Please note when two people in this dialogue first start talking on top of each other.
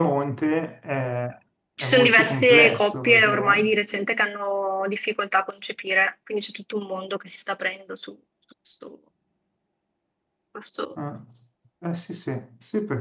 1.8 s

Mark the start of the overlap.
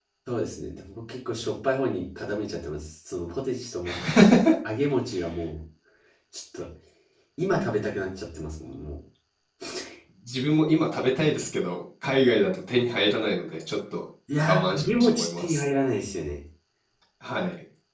14.3 s

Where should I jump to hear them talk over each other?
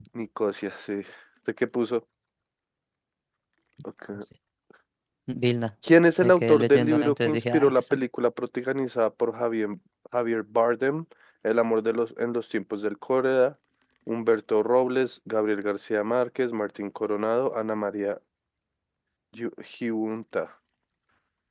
6.2 s

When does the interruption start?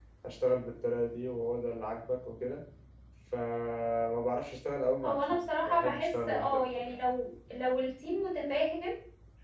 5.0 s

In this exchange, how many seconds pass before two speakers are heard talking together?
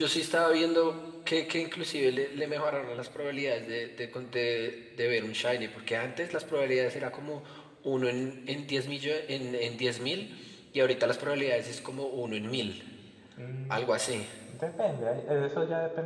none

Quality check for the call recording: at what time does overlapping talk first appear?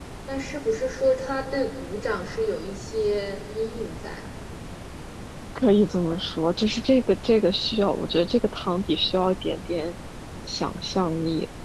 none

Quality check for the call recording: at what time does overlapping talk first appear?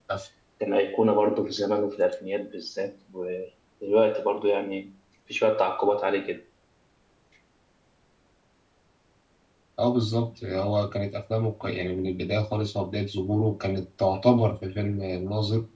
none

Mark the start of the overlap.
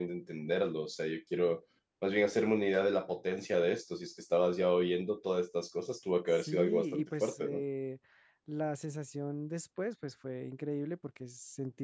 6.3 s

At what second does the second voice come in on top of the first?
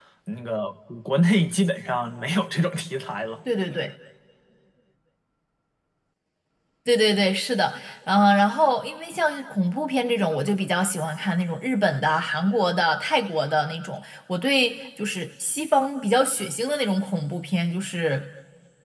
none

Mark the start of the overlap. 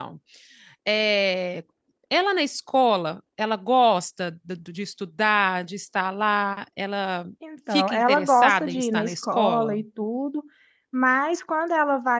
7.7 s

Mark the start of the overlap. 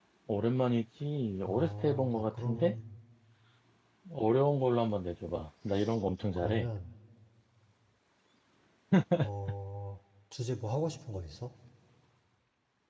1.5 s

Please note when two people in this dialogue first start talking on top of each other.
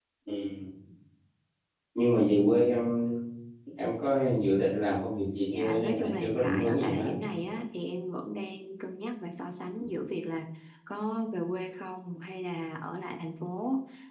5.5 s

